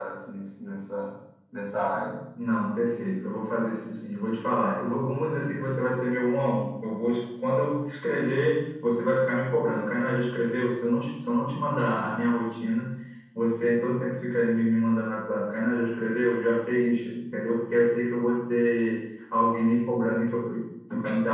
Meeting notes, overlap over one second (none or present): none